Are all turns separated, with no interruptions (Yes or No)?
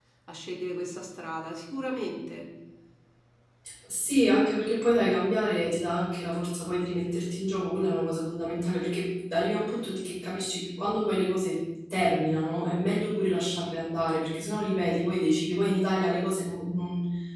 Yes